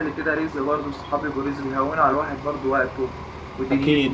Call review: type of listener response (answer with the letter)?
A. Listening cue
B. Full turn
B